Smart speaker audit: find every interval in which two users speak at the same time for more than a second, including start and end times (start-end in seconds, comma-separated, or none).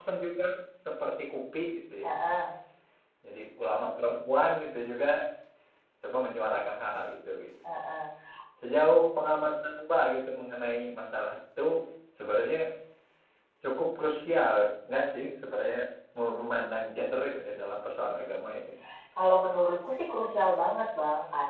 none